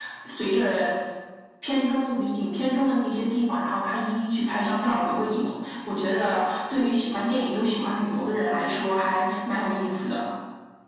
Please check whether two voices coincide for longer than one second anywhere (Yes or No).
No